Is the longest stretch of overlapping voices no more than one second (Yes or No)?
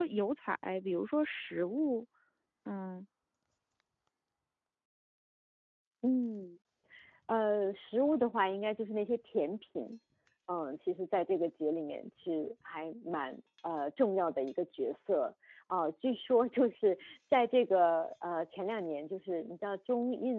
Yes